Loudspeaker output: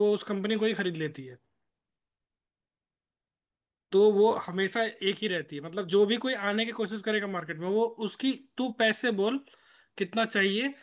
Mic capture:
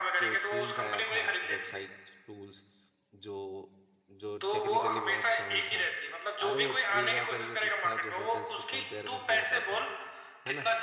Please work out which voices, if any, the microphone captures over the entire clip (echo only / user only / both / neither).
both